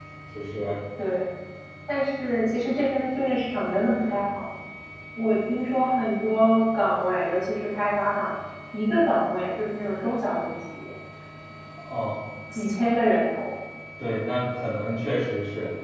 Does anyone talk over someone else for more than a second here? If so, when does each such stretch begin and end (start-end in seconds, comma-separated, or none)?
none